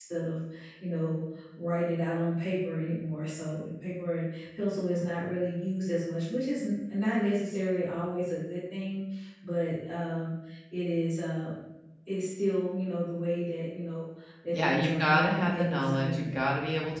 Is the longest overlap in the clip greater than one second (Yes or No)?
Yes